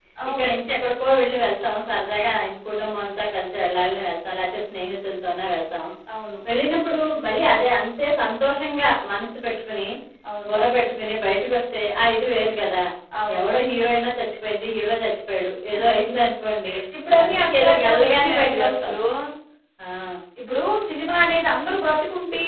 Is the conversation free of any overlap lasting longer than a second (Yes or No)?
No